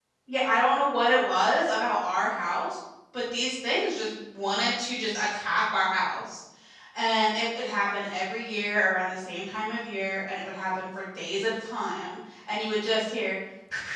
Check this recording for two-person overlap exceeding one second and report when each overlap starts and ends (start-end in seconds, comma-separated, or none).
none